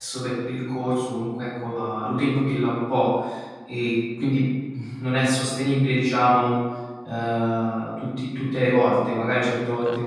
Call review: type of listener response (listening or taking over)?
listening